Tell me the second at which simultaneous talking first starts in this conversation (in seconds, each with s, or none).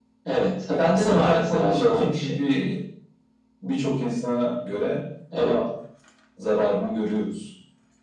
0.7 s